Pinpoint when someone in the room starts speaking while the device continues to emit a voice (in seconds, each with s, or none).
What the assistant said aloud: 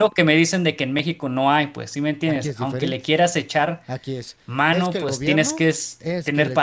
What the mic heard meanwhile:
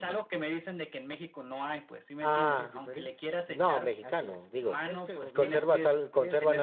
2.2 s